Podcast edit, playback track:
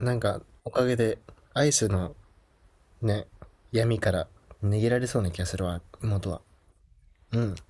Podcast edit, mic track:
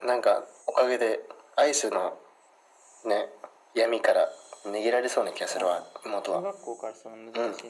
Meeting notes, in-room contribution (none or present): present